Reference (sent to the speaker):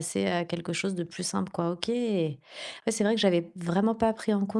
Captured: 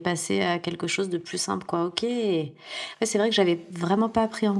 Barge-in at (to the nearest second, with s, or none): none